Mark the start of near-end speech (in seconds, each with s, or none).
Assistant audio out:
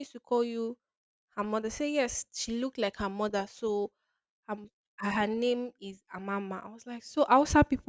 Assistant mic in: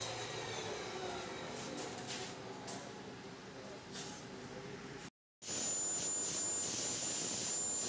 none